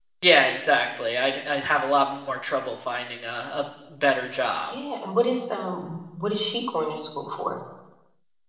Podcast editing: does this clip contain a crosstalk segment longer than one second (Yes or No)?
No